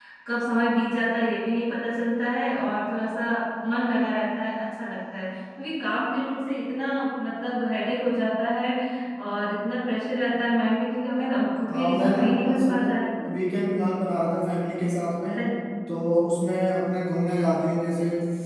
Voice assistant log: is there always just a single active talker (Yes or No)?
No